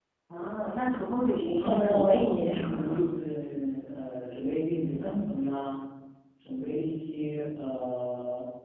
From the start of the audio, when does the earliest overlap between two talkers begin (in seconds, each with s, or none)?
1.6 s